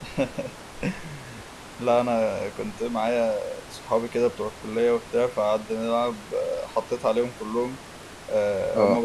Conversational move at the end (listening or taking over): listening